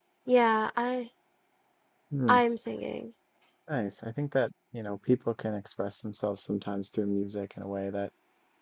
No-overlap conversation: Yes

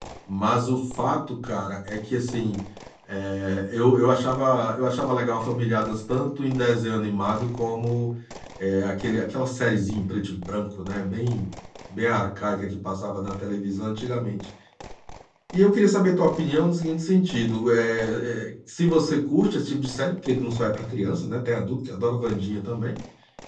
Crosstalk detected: No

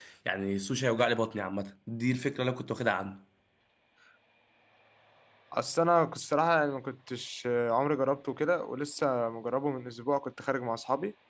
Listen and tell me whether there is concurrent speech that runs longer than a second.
No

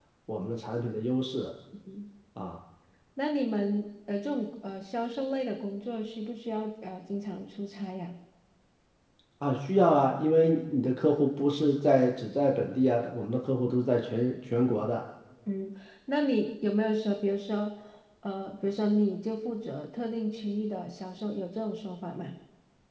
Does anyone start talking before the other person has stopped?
No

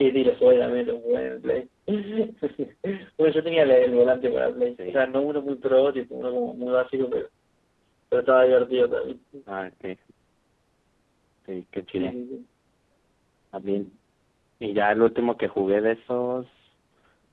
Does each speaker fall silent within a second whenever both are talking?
Yes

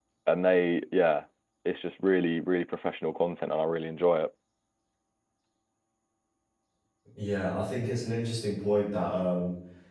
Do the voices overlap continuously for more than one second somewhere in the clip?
No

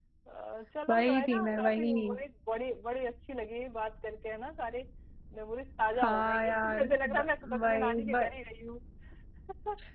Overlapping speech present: Yes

